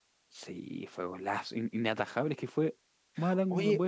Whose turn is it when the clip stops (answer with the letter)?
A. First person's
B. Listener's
B